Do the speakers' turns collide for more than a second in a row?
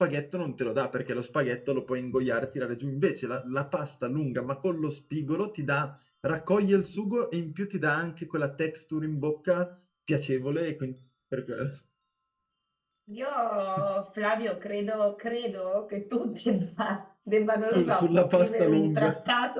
Yes, from 17.7 s

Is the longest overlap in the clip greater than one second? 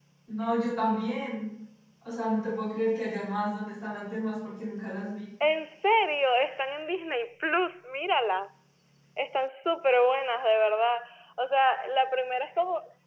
No

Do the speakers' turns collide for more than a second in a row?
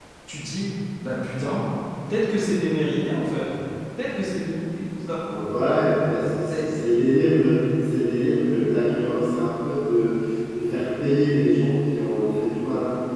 No

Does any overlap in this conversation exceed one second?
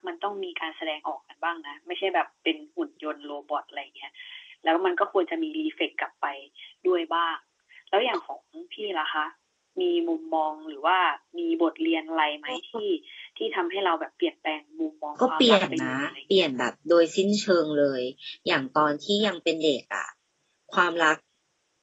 Yes, from 15.2 s

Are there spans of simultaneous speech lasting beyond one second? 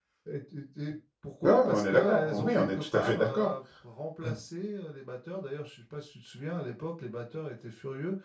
Yes, from 1.4 s

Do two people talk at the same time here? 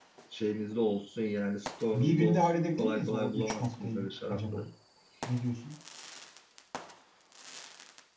Yes, from 1.9 s

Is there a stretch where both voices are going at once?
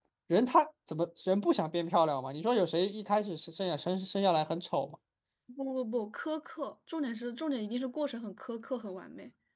No

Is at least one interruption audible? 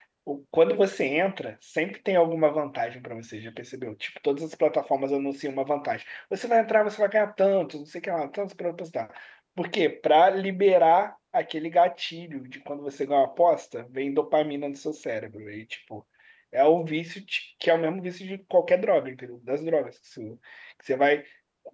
No

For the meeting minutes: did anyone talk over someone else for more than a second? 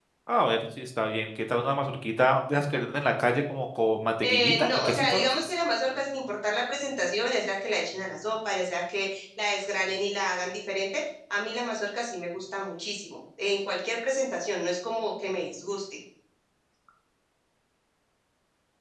Yes, from 4.2 s

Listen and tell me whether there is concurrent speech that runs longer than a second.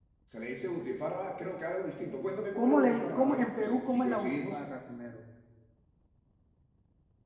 Yes, from 2.5 s

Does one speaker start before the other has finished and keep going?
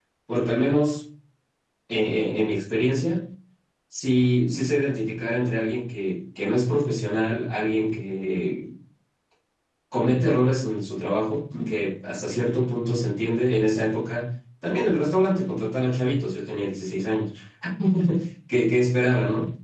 No

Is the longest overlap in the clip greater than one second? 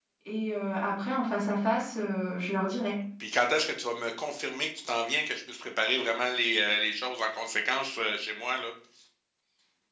No

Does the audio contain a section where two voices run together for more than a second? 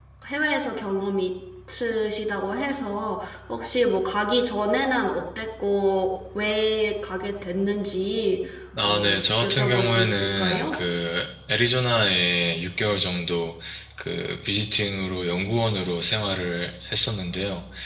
Yes, from 8.8 s

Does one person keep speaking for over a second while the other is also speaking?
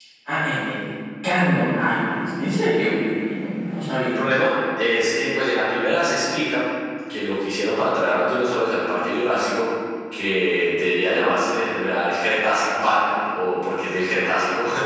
No

